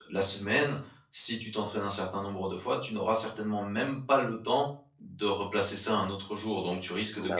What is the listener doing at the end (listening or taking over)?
listening